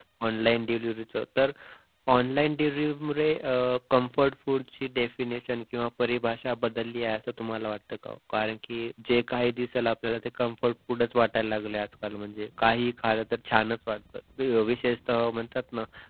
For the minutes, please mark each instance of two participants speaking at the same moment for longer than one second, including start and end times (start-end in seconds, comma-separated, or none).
none